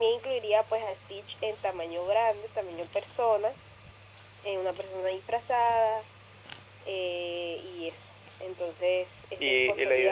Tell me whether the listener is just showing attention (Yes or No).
No